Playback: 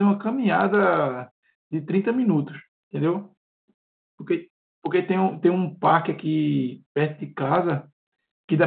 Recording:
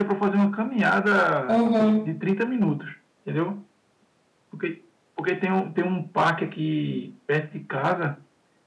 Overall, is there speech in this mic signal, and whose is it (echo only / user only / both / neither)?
both